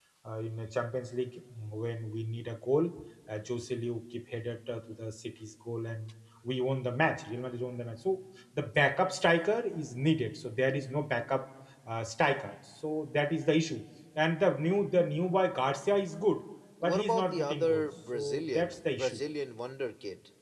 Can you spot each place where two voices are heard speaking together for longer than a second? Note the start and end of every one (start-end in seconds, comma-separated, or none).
16.8-19.2